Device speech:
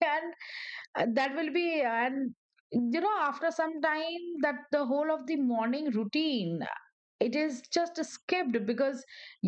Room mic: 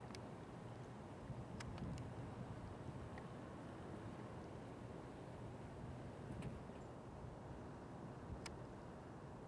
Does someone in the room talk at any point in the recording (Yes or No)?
No